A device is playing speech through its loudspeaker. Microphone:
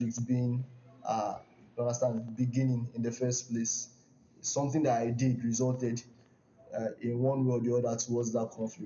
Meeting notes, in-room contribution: none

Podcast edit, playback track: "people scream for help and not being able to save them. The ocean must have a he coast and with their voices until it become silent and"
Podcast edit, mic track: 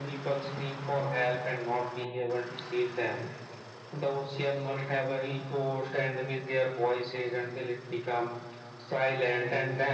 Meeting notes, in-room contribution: none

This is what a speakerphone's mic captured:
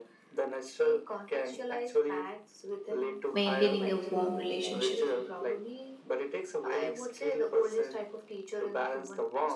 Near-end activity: present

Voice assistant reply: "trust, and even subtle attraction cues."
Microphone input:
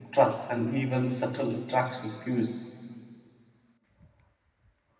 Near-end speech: none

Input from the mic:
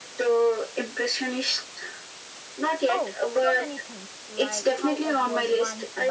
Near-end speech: present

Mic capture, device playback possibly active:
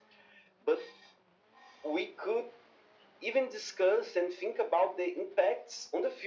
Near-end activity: none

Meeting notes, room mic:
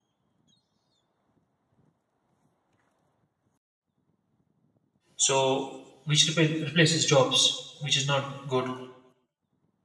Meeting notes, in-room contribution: present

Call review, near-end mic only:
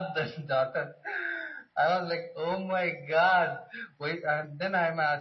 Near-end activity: none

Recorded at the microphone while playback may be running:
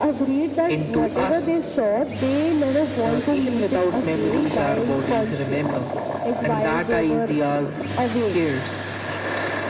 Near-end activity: none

